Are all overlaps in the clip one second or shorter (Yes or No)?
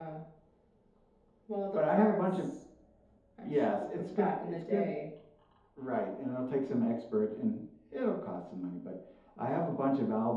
No